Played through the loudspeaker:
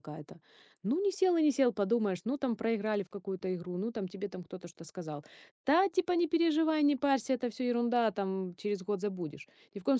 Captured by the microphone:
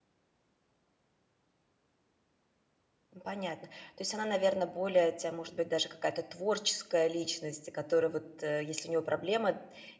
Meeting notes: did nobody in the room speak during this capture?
No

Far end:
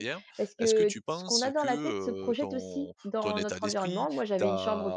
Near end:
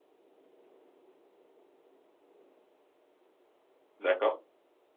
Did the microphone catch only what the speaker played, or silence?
No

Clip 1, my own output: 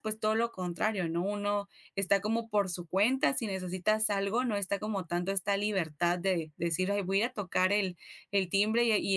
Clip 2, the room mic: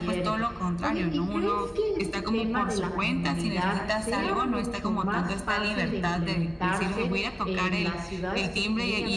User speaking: Yes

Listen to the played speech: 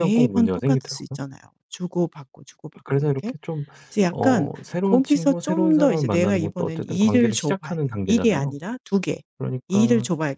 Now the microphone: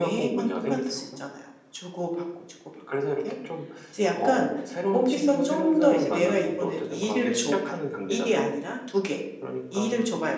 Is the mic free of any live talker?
Yes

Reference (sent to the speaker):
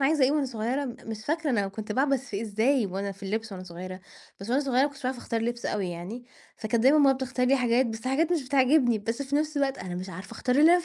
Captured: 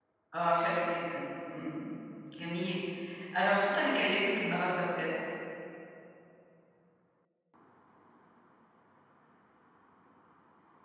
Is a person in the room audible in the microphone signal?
Yes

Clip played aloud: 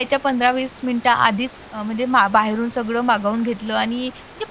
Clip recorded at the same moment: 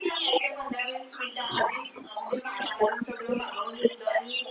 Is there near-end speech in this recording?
No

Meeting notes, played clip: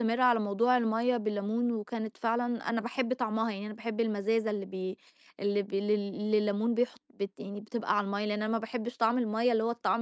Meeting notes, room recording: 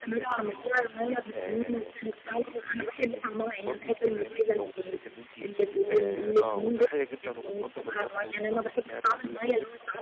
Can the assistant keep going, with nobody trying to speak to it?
No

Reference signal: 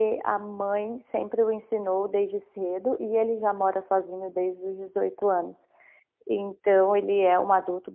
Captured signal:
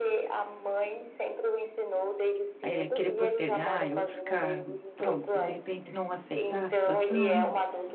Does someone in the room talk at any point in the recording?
Yes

